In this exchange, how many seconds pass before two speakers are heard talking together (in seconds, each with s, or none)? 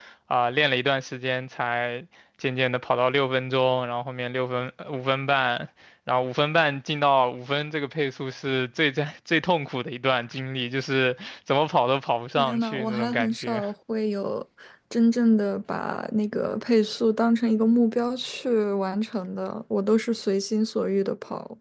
12.4 s